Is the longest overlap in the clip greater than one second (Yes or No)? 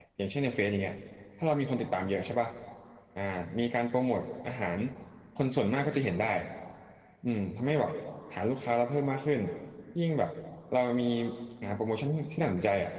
No